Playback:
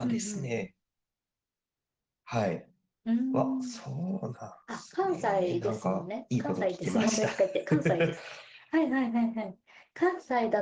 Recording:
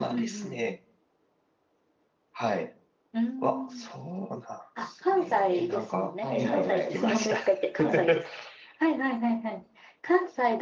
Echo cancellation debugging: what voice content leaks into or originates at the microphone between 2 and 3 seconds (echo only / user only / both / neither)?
echo only